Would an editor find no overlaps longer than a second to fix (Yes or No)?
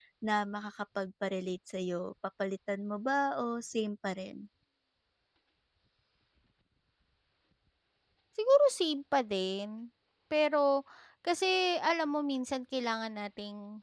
Yes